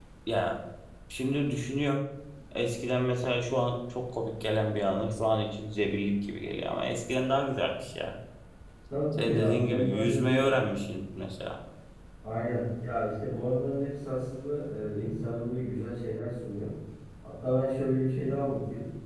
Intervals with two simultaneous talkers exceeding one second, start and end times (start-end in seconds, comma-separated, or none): 9.1-10.6